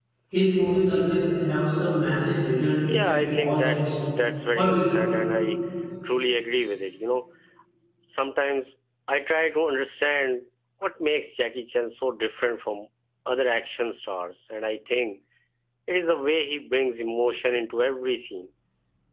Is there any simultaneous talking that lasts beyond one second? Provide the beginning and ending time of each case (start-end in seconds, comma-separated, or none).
2.9-4.1